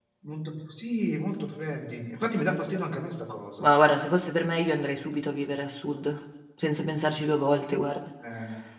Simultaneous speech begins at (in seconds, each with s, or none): none